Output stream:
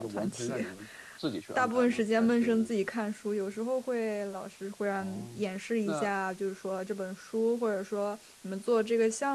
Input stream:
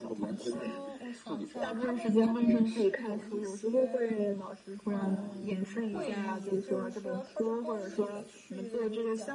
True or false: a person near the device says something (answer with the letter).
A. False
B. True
B